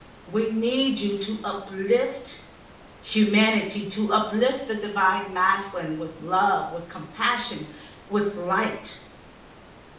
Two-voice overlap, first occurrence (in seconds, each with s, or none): none